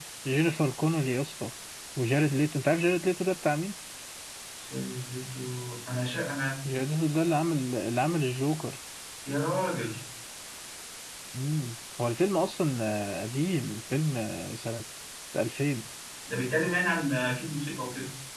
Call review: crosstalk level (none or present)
none